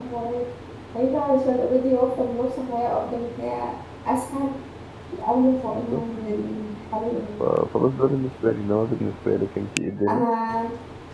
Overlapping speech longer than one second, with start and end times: none

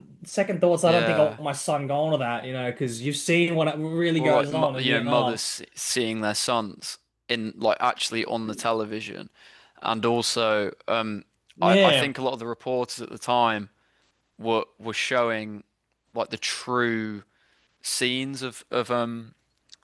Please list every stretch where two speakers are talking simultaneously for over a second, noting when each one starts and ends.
4.2-5.4

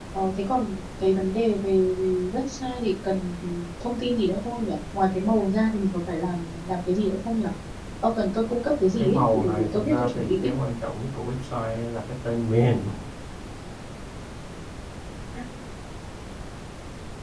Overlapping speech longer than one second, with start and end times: 9.0-10.5

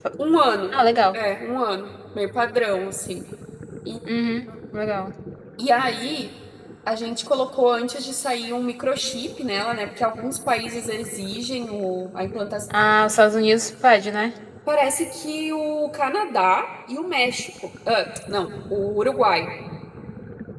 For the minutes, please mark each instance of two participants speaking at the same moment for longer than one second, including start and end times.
none

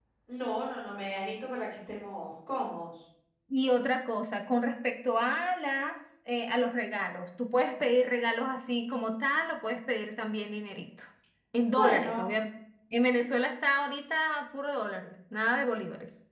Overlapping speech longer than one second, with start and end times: none

